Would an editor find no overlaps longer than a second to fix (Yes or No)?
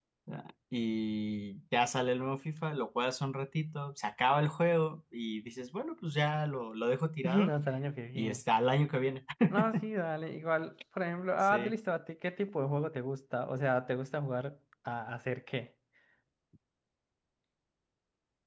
Yes